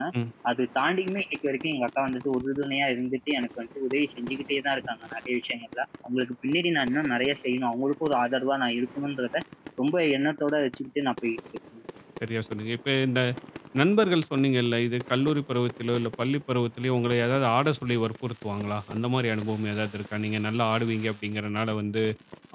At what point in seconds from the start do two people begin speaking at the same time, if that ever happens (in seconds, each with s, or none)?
none